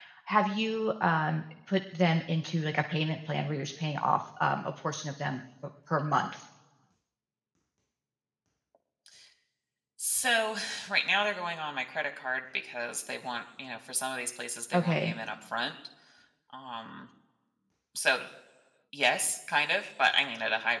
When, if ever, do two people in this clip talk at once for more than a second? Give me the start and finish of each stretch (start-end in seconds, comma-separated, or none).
none